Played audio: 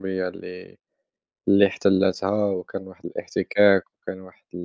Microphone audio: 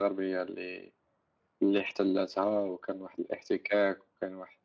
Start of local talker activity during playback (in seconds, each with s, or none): none